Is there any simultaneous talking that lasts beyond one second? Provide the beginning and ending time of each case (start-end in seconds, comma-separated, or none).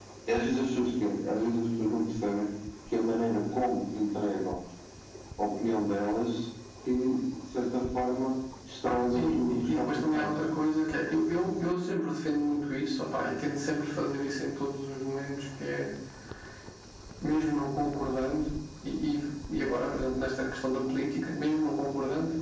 8.8-10.3